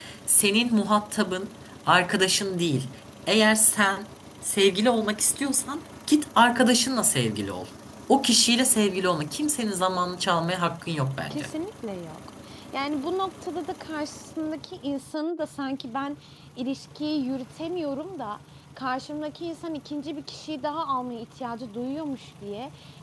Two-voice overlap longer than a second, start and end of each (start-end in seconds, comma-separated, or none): none